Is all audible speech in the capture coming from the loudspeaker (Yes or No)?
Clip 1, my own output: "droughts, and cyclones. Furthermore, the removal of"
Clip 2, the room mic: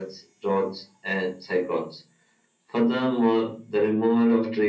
Yes